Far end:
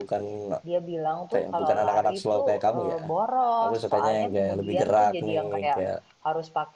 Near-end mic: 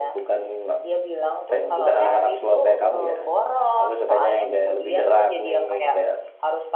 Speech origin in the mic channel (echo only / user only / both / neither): both